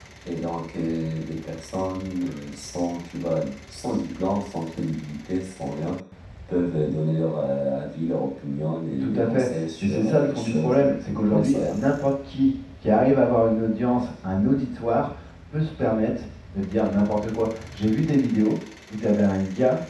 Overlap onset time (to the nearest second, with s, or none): 9 s